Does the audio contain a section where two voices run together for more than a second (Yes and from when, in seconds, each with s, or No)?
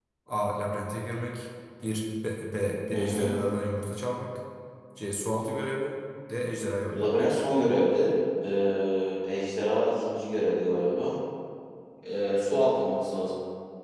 No